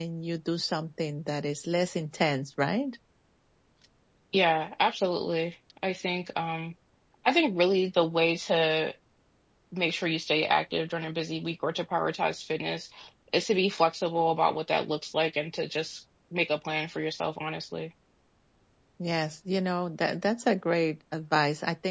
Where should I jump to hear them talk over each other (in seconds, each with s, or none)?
none